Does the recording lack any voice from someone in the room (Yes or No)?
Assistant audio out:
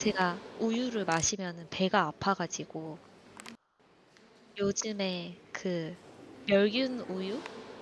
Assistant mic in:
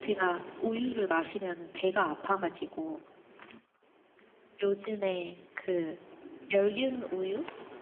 Yes